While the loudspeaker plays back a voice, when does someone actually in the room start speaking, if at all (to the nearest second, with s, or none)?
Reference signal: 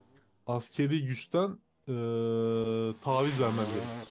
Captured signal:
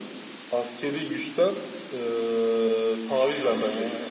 none